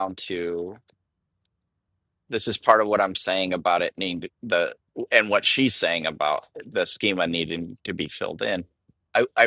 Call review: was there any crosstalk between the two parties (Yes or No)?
No